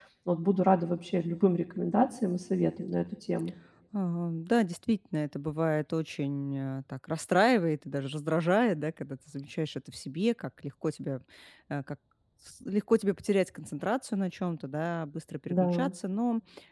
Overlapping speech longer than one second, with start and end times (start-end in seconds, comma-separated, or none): none